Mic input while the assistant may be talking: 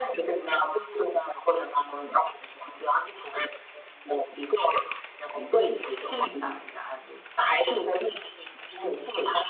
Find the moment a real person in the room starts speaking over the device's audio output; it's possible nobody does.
5.5 s

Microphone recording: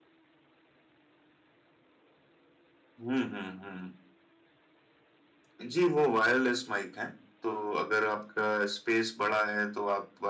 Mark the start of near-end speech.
none

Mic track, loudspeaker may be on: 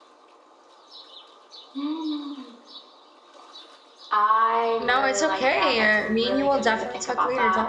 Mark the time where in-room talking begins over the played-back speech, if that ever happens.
4.8 s

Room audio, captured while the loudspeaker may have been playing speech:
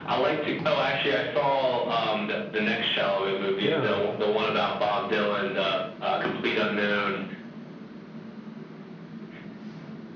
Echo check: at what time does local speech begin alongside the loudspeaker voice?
3.6 s

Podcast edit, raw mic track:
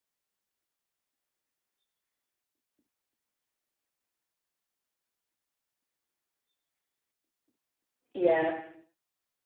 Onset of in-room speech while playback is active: 8.1 s

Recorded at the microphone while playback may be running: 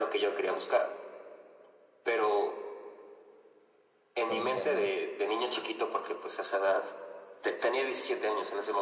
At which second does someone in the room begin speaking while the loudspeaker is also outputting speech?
4.2 s

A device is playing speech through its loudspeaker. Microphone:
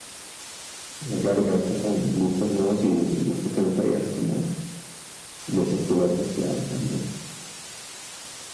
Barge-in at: none

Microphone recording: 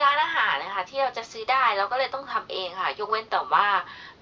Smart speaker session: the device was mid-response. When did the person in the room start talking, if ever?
none

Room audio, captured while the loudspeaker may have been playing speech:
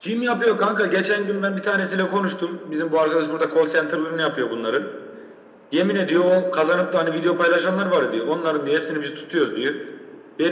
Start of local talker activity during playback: none

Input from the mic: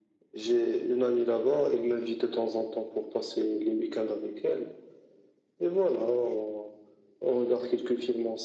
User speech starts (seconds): none

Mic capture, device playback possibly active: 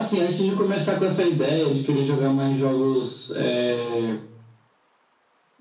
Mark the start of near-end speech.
none

